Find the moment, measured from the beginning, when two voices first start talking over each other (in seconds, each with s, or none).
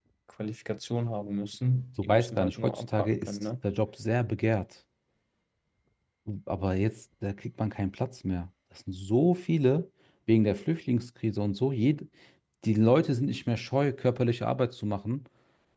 2.0 s